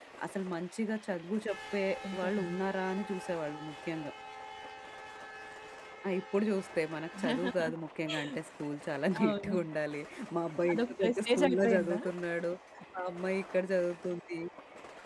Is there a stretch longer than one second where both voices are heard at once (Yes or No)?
Yes